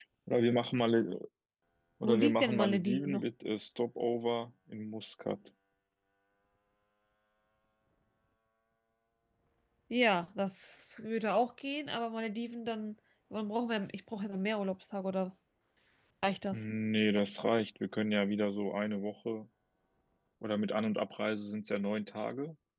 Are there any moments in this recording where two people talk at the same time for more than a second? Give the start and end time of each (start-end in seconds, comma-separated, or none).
2.0-3.2